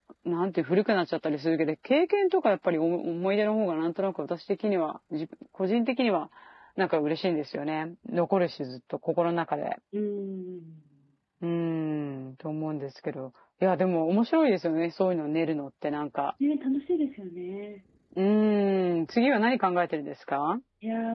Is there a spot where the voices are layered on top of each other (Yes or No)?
No